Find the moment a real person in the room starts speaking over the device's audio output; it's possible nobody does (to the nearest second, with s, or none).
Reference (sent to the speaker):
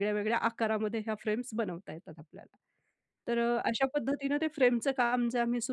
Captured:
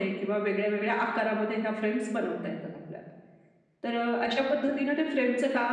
none